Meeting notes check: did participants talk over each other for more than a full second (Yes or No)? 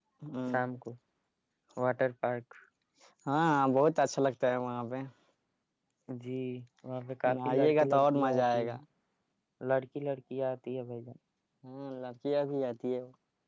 Yes